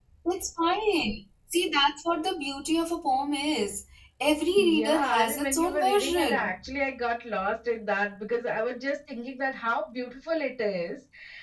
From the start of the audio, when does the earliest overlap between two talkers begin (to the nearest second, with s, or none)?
5 s